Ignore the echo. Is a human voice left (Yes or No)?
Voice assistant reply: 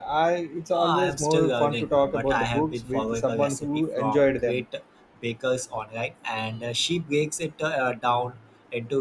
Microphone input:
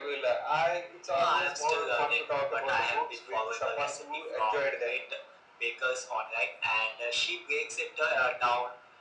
No